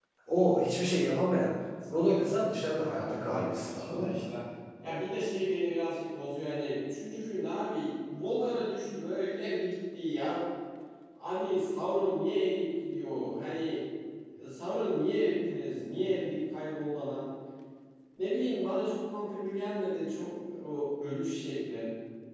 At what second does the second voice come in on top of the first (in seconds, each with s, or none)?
2.8 s